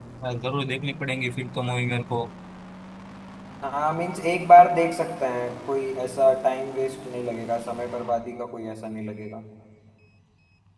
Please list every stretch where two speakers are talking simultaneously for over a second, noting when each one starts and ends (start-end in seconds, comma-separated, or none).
none